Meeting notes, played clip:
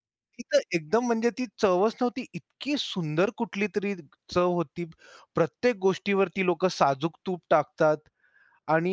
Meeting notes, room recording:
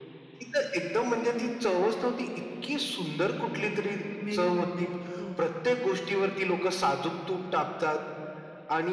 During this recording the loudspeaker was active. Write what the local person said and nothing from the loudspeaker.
मेनू म्हणता येईल, हो.

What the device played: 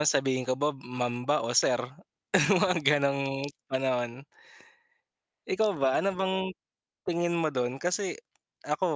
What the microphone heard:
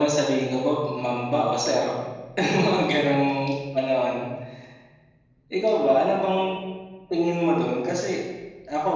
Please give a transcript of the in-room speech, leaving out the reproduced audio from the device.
none

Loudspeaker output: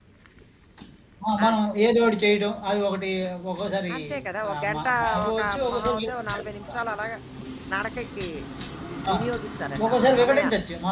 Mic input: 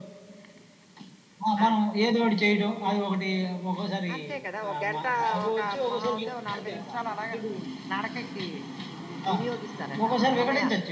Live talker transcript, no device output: అంతా చెడిపోయింది.

